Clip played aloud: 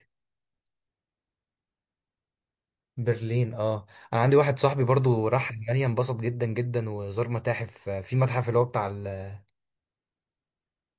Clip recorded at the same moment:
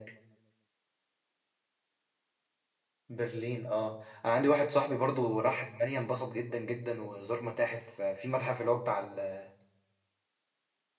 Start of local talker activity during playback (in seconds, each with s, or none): none